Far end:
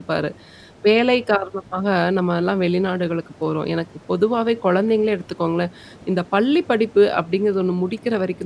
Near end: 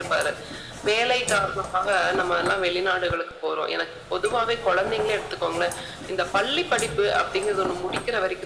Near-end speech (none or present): none